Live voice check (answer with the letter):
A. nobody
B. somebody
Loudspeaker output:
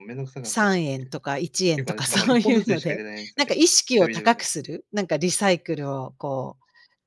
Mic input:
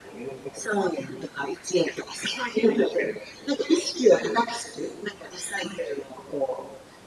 A